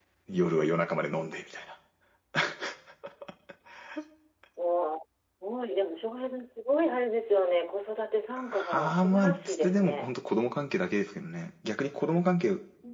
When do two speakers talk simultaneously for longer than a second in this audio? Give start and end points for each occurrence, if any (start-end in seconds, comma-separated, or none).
8.4-10.1